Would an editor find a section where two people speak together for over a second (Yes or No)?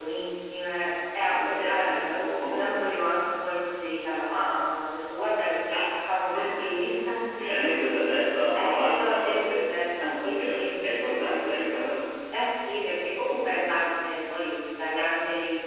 Yes